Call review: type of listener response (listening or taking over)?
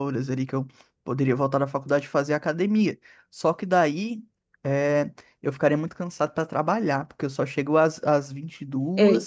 taking over